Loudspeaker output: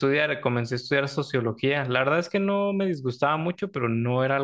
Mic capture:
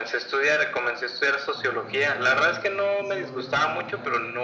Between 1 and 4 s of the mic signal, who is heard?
both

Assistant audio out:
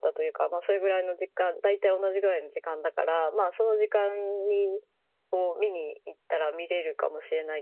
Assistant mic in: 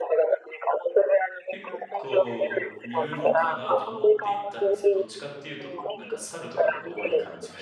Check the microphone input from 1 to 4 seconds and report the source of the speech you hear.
both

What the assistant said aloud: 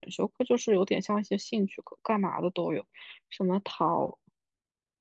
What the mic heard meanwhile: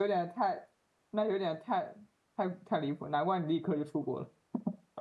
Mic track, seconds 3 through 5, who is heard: user only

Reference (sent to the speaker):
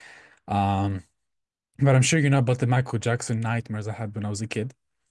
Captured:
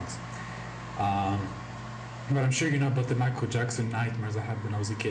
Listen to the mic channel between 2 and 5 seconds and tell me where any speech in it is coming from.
echo only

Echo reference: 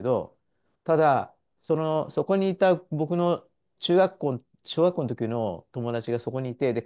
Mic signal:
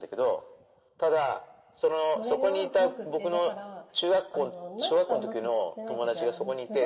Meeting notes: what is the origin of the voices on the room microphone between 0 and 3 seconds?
both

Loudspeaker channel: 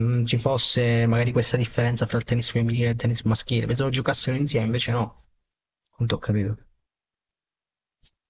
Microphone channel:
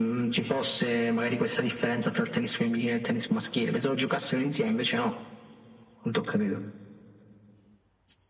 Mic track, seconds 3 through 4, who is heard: echo only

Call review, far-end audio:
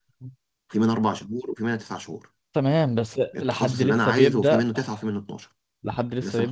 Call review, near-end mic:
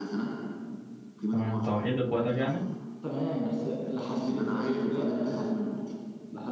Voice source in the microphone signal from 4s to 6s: echo only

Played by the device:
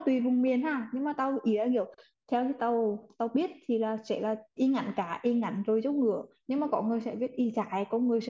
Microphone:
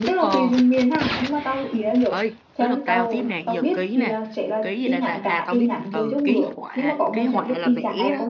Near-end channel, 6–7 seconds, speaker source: both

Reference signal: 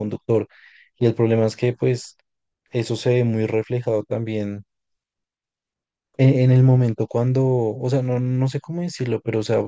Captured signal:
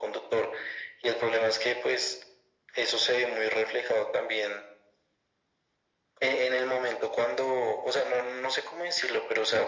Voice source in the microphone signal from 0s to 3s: echo only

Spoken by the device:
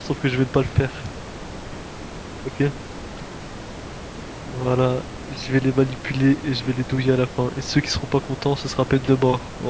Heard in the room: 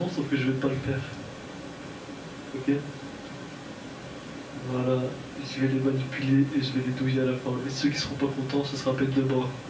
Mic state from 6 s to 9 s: echo only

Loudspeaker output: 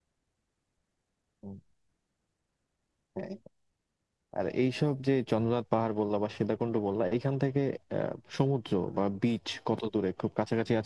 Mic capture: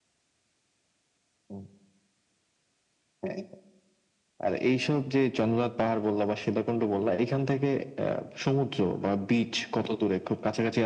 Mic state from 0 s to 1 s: neither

